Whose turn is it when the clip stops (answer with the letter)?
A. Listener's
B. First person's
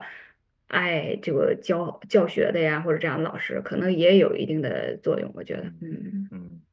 A